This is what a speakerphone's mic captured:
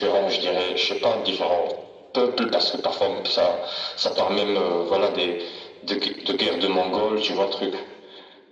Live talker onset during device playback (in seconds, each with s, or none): none